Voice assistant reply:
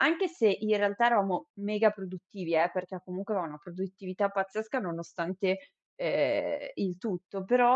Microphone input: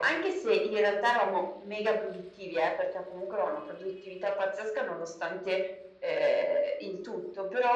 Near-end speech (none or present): none